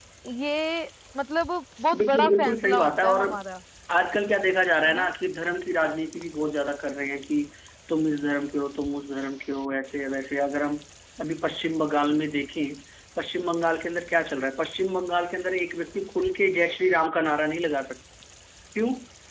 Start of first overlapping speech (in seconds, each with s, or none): 1.9 s